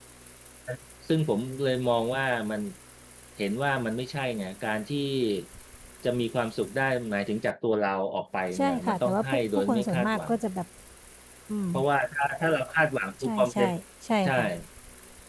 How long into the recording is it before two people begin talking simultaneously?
8.6 s

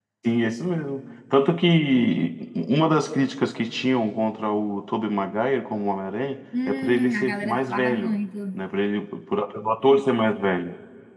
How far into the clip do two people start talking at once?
6.5 s

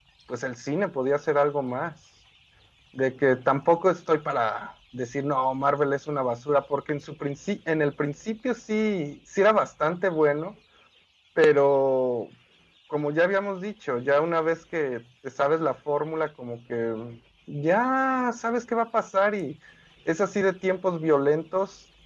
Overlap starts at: none

